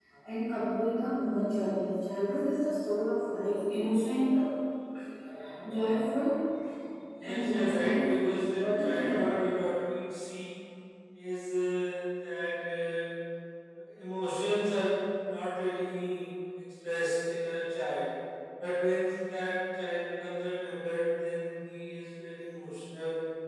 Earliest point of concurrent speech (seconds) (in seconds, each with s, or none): 7.2 s